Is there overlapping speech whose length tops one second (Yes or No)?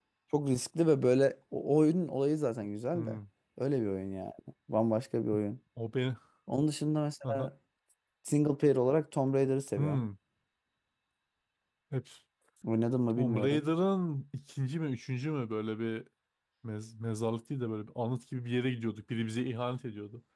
No